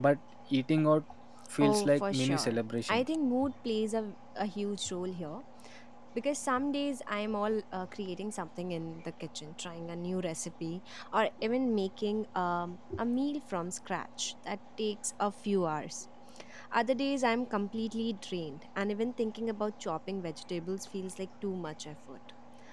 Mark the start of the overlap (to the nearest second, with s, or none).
2 s